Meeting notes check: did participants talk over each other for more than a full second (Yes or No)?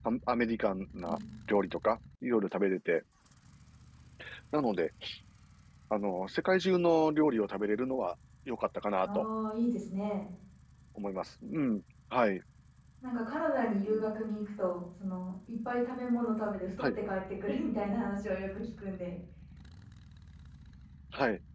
No